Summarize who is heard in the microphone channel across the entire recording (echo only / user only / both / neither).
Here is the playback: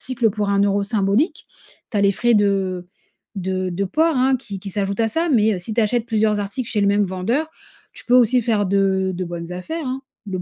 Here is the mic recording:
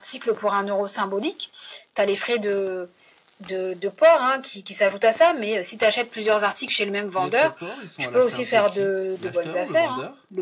both